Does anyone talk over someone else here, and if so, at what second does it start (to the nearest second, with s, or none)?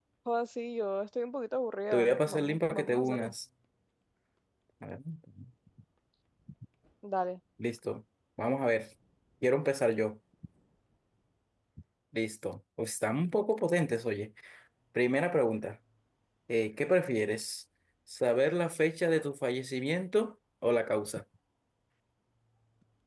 2 s